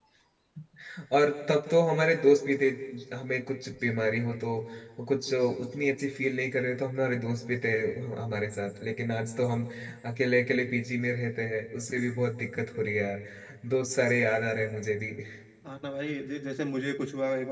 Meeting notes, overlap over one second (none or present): none